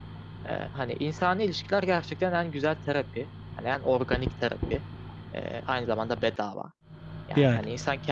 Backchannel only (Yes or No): Yes